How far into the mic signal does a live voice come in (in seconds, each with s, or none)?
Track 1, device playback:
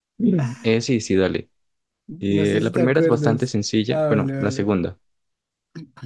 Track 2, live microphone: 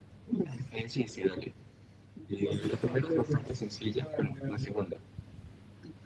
none